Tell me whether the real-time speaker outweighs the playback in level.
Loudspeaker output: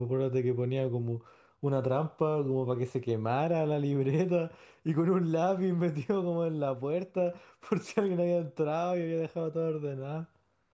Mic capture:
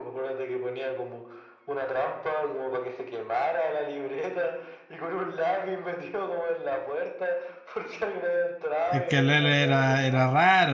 Yes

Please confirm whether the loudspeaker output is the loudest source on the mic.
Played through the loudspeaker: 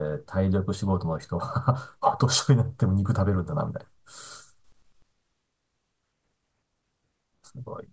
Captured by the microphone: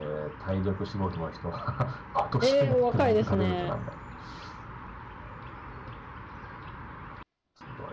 No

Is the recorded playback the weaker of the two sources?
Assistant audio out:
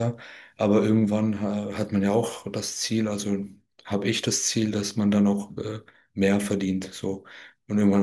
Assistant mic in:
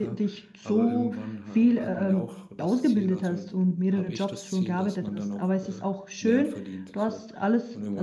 Yes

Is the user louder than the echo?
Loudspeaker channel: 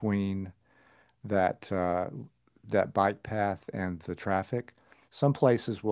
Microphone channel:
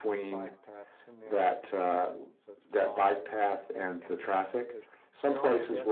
No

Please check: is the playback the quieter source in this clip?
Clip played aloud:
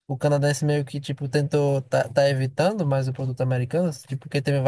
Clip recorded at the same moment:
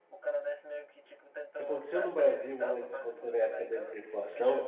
Yes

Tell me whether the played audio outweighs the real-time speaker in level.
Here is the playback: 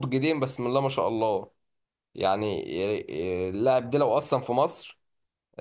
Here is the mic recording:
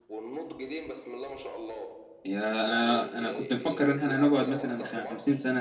No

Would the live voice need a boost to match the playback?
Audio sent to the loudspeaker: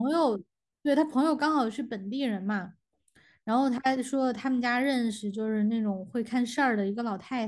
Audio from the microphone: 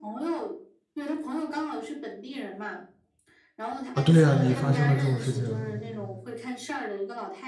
No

